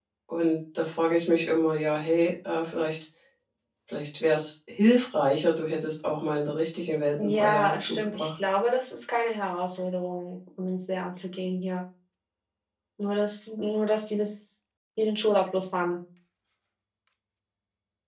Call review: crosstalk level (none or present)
present